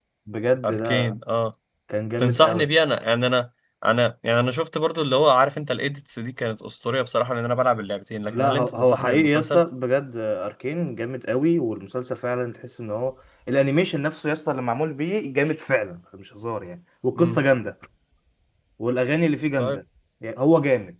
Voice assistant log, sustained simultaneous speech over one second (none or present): present